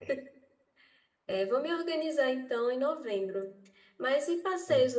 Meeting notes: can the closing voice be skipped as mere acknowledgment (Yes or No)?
Yes